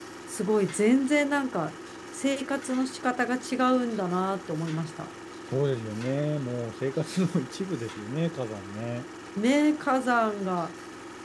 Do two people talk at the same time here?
No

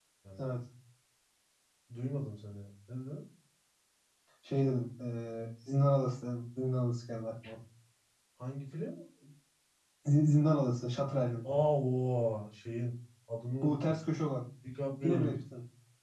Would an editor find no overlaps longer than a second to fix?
Yes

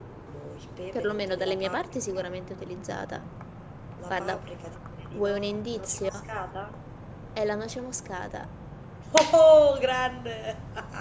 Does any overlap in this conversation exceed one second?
Yes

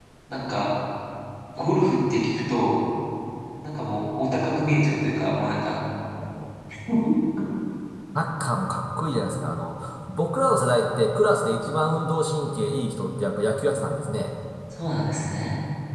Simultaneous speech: No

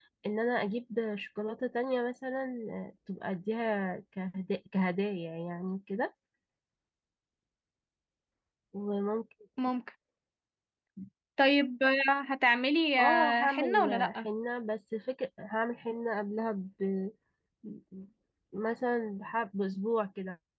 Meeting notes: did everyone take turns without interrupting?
No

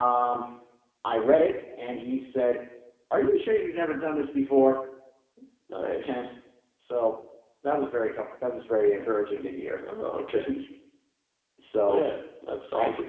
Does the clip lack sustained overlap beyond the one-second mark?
Yes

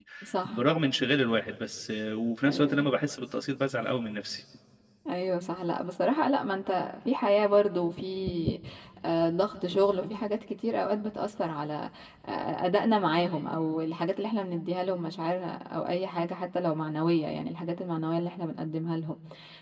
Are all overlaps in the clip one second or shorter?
Yes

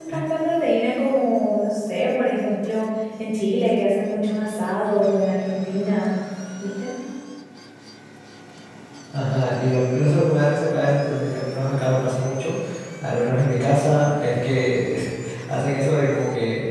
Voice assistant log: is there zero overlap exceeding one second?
Yes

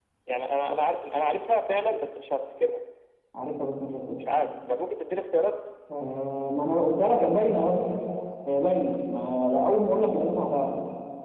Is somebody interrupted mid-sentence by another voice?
No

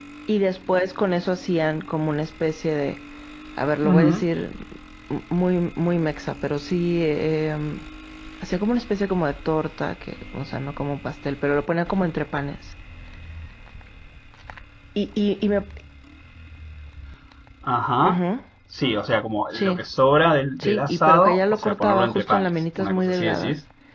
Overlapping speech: Yes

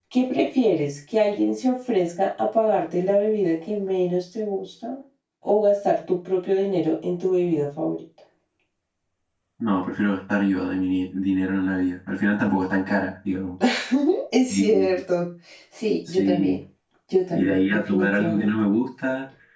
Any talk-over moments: Yes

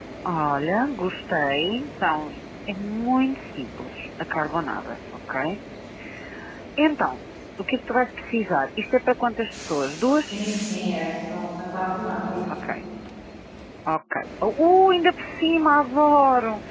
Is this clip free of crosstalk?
Yes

